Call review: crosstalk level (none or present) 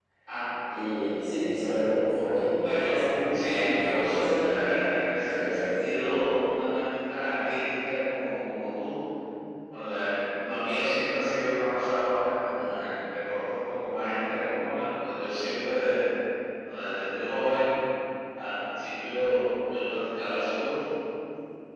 present